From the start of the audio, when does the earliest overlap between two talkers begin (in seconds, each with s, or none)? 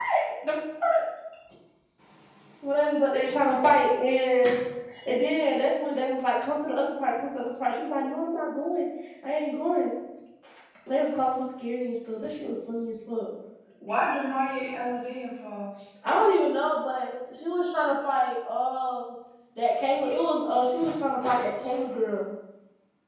none